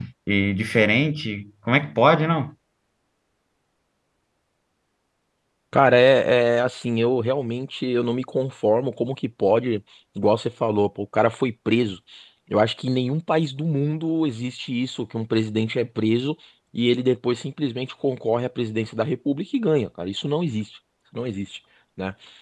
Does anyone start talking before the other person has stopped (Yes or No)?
No